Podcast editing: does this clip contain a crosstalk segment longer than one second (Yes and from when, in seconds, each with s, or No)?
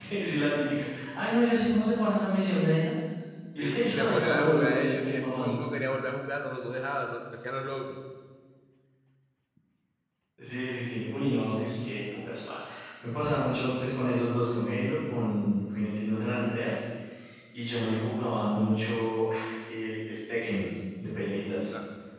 Yes, from 3.5 s